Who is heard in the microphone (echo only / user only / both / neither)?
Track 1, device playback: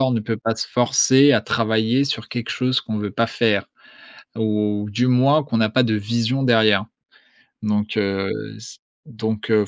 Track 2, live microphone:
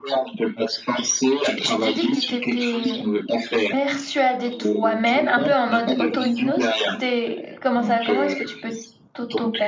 both